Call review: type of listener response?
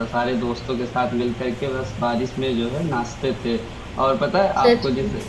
listening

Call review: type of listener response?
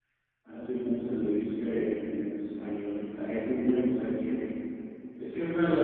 listening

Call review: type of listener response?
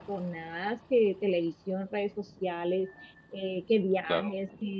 listening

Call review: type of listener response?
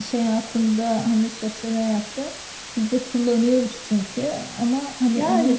taking over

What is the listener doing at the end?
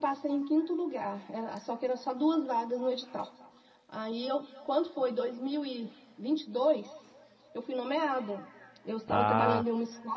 listening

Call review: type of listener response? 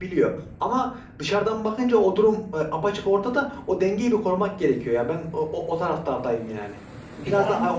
listening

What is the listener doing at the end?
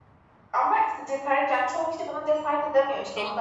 taking over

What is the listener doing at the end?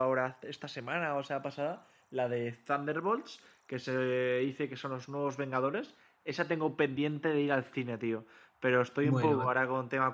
listening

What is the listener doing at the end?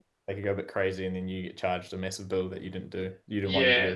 taking over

